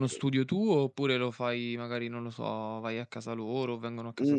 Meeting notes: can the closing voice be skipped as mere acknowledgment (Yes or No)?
No